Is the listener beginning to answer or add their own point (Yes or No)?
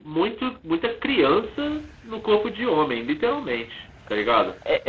Yes